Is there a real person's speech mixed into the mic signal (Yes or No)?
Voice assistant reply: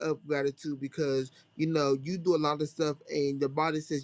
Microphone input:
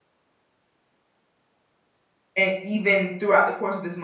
Yes